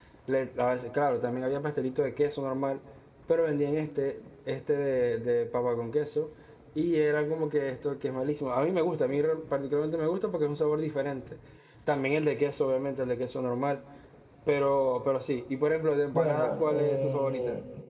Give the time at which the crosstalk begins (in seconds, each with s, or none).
16.1 s